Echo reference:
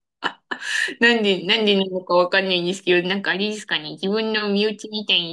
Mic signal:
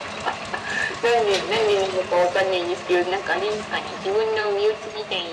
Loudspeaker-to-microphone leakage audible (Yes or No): Yes